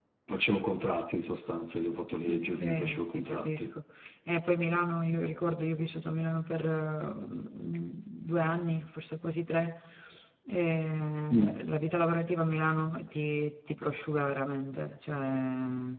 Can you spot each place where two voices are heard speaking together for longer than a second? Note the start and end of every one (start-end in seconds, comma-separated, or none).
2.3-3.7